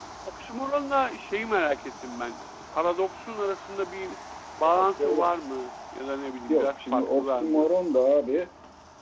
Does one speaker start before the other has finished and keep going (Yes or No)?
Yes